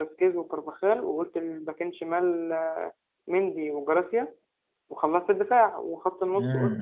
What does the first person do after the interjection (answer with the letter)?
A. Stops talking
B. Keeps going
A